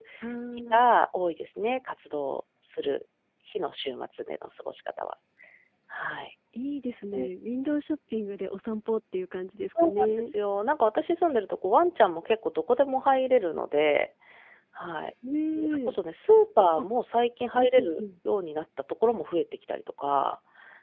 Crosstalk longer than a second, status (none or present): none